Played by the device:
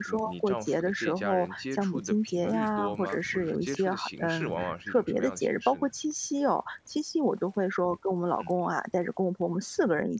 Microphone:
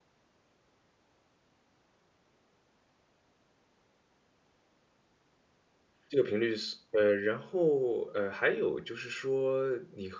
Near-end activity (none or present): present